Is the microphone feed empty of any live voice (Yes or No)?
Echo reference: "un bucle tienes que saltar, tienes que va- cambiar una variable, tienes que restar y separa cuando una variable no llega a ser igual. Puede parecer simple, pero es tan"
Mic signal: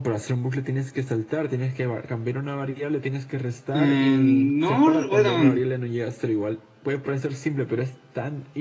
No